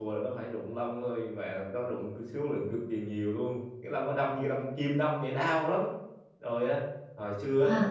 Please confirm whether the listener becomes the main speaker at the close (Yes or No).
No